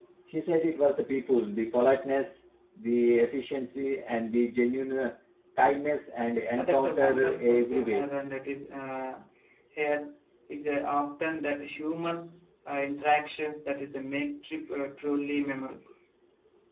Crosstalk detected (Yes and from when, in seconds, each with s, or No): Yes, from 6.6 s